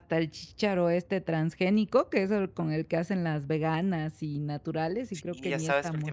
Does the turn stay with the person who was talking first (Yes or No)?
No